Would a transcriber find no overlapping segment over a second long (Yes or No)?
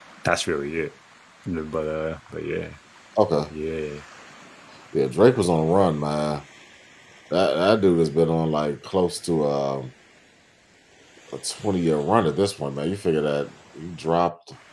Yes